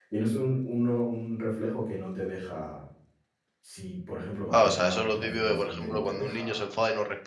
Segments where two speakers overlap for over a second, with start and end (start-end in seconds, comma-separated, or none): 4.5-6.8